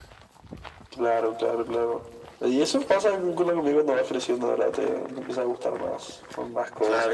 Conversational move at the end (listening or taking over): taking over